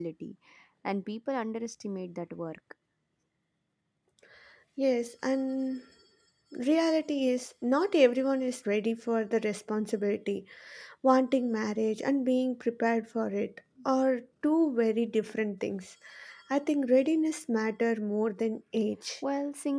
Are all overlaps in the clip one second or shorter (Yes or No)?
Yes